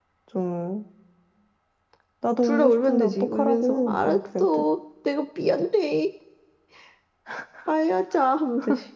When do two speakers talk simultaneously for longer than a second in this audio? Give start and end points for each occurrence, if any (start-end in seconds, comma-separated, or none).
2.4-4.6